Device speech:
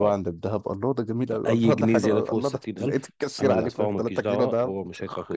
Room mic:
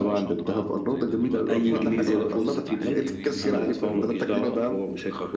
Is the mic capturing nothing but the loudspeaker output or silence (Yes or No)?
No